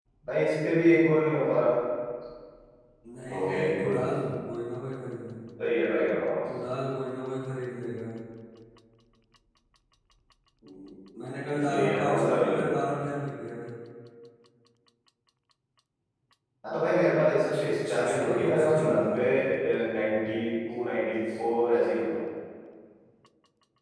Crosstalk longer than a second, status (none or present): present